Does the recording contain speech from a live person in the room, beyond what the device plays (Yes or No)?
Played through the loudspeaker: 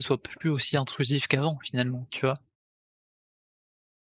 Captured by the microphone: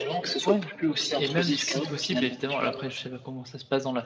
Yes